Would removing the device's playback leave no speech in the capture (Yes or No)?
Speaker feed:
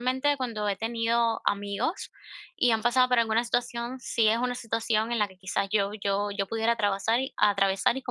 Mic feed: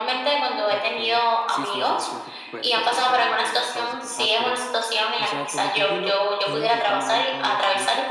No